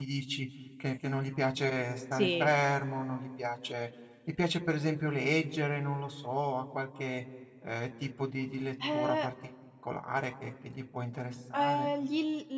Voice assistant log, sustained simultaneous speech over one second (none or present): none